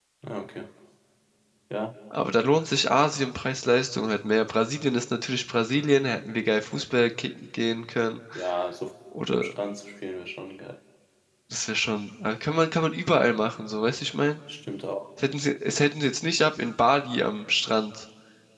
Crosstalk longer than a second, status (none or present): none